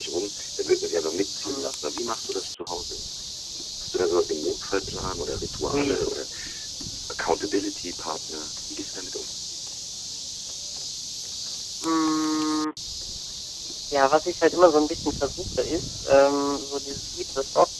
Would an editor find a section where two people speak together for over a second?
No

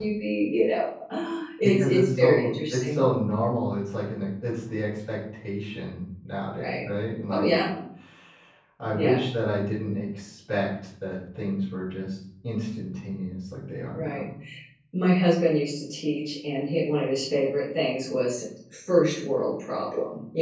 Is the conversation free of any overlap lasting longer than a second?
No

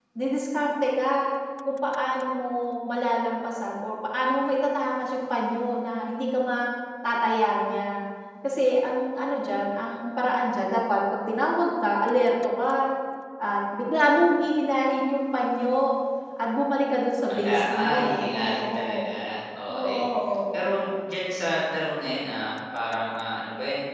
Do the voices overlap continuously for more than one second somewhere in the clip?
Yes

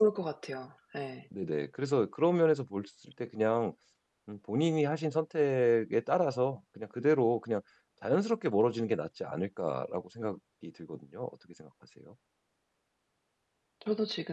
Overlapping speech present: No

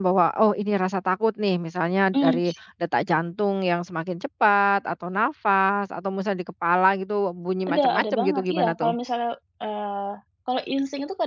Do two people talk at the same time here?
Yes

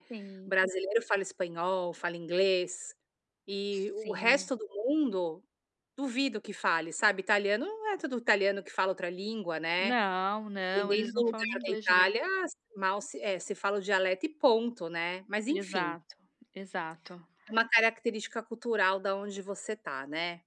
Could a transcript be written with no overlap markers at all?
No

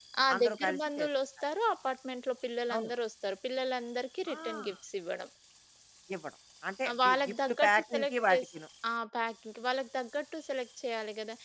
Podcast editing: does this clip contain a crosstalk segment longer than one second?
Yes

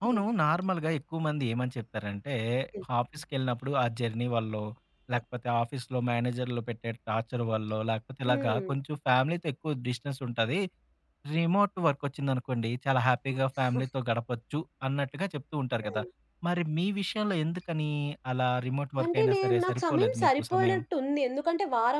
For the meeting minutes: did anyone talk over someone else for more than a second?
Yes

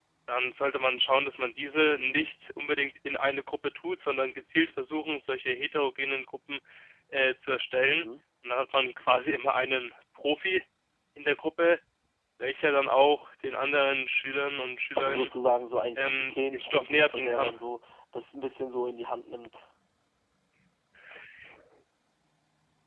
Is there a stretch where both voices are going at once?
Yes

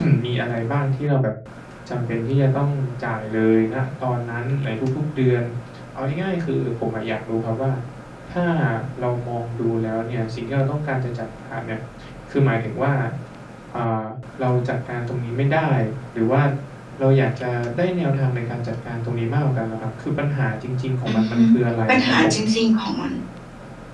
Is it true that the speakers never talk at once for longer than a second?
Yes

